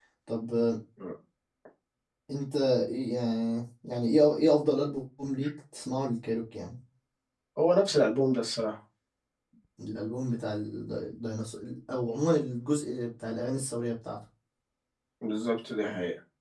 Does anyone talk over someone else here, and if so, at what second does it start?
none

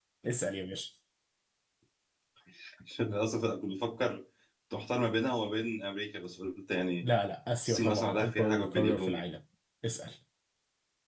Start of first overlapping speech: 7.6 s

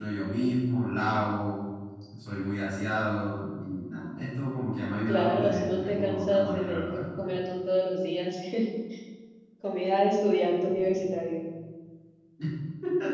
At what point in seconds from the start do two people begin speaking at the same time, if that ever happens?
5.1 s

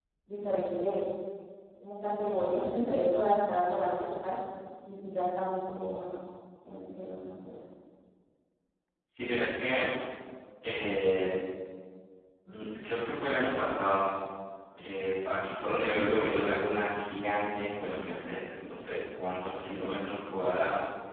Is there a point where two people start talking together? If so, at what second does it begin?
none

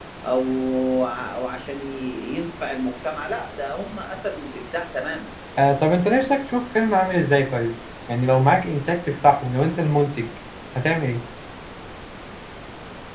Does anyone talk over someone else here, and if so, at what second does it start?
none

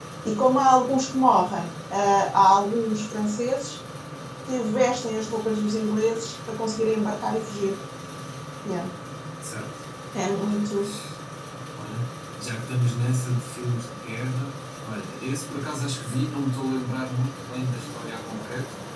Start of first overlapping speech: none

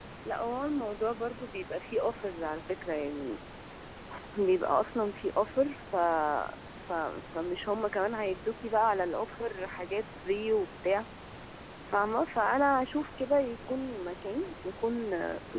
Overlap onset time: none

